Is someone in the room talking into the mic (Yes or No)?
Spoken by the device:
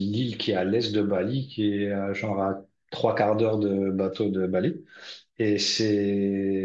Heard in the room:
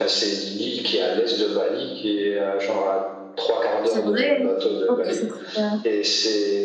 Yes